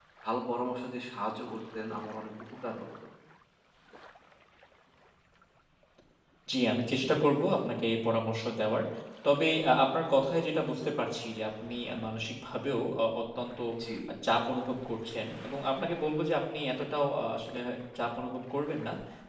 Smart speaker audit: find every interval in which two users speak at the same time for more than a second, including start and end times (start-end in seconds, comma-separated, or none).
none